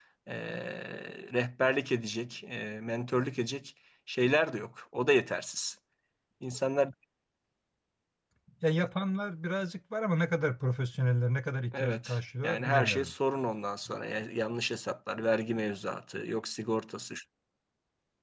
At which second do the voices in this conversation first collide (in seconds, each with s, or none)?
11.7 s